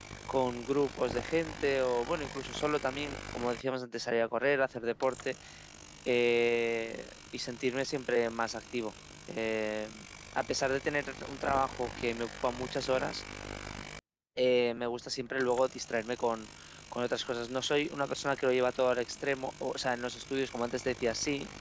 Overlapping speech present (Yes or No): No